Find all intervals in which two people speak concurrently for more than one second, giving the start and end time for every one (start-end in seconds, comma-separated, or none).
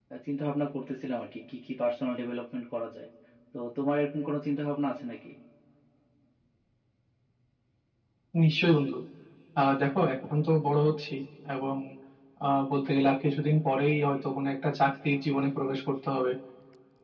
none